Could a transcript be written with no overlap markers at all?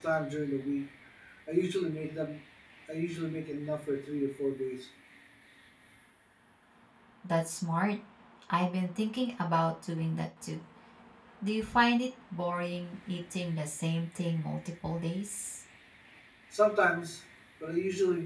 Yes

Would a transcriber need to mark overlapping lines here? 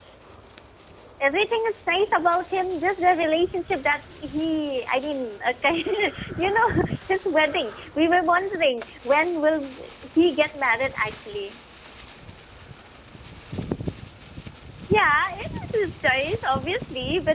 No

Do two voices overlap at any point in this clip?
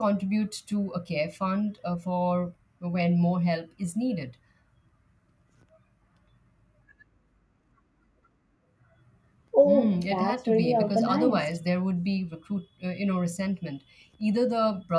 Yes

